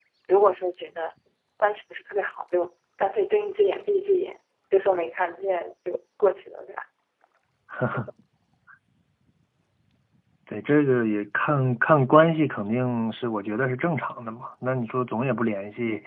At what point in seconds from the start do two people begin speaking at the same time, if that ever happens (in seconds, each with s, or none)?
none